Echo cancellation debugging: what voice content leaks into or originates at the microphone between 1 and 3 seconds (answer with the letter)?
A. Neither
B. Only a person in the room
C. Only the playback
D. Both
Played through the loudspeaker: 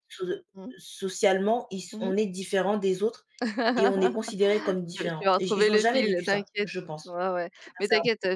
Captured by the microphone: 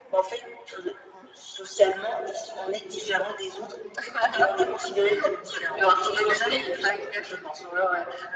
C